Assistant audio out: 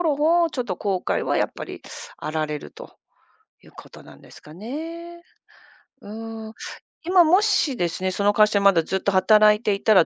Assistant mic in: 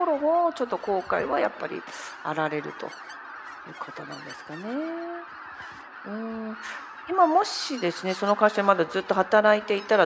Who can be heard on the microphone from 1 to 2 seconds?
echo only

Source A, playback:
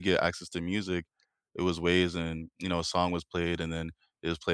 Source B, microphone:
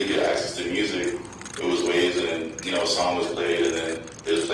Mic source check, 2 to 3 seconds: echo only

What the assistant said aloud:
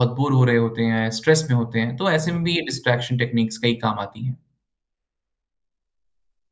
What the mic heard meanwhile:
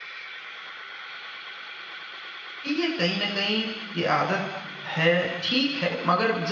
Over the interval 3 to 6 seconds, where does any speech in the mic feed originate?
user only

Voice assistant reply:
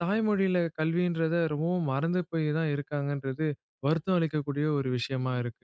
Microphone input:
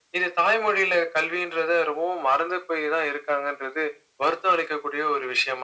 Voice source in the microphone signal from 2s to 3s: echo only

